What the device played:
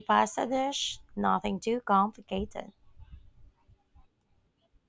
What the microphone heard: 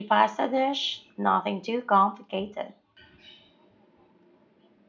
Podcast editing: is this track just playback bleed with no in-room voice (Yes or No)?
Yes